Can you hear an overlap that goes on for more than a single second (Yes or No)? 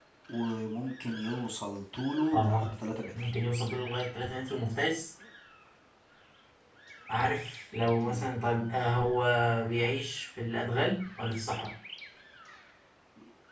No